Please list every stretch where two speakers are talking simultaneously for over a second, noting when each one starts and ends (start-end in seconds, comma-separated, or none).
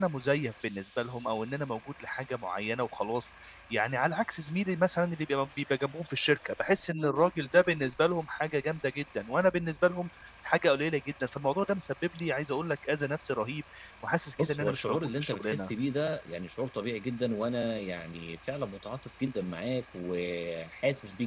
14.4-15.7